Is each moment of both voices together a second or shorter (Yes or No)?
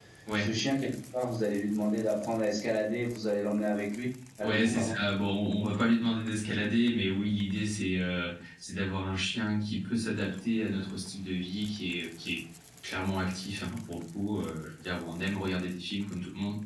Yes